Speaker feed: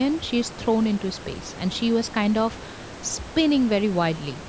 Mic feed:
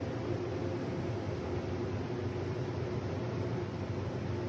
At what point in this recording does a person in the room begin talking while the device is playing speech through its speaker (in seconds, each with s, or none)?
none